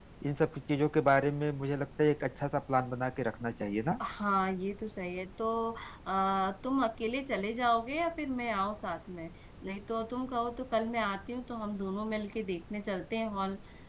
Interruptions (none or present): none